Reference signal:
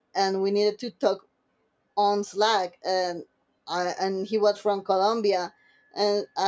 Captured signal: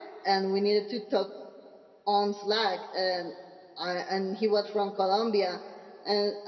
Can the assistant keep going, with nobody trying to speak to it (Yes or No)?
Yes